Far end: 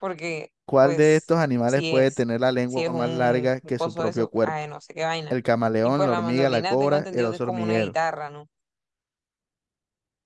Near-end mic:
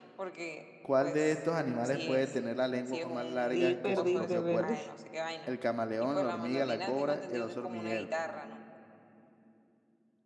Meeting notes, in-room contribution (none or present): present